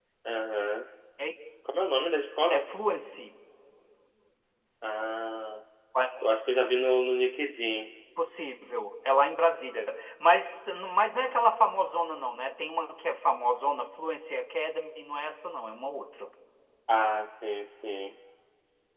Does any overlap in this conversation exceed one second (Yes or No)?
No